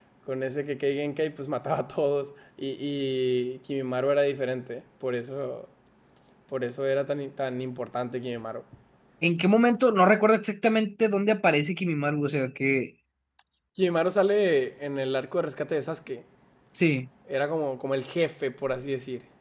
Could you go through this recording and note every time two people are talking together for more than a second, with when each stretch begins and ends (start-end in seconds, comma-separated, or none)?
none